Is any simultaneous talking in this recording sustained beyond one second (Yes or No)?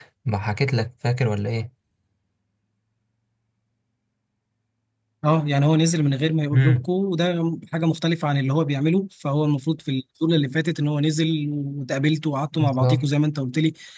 No